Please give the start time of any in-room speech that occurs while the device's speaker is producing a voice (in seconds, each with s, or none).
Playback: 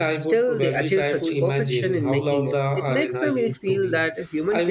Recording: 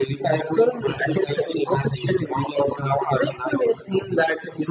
none